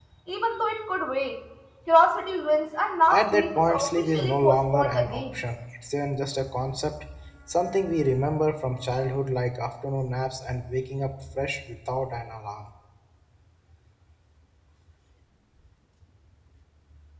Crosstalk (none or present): present